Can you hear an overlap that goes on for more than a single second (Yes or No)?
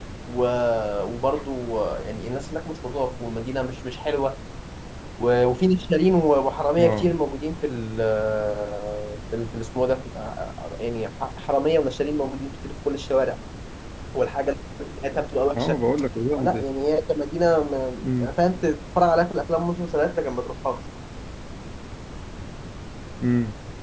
No